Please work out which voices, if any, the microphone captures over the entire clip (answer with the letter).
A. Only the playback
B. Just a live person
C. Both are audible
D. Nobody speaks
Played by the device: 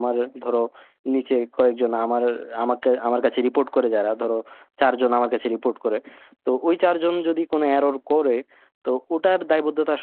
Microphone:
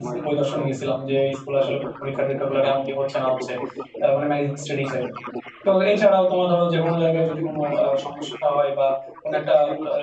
C